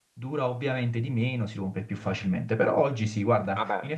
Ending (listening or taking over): listening